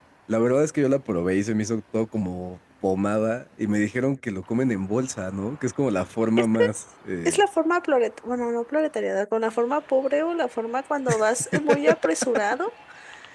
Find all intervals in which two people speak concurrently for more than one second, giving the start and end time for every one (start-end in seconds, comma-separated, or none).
none